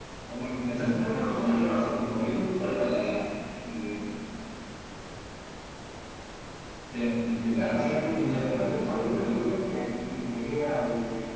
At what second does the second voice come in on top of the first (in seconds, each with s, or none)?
0.7 s